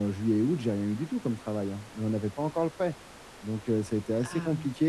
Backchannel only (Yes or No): Yes